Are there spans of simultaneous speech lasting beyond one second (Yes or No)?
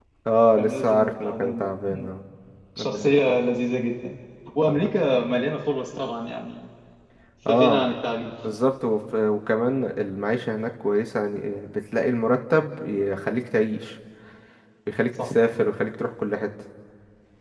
Yes